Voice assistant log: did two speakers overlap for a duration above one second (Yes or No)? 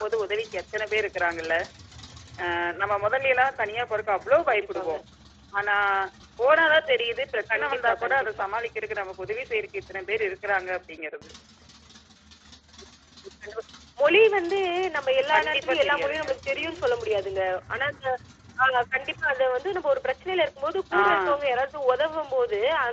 Yes